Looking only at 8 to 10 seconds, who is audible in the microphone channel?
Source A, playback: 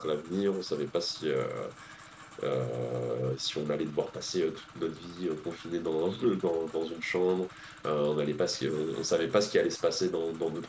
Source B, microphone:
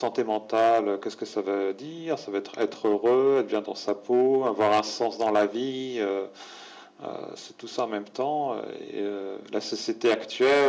user only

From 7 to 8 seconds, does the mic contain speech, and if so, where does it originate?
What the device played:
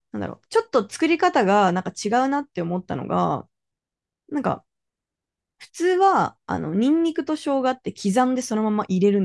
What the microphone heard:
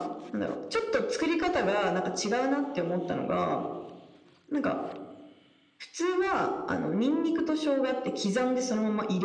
echo only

